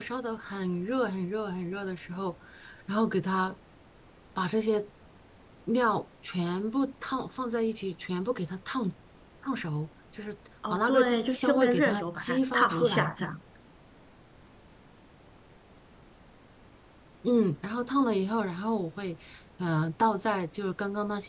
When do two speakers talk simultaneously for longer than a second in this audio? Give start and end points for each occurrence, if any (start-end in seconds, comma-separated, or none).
10.7-13.1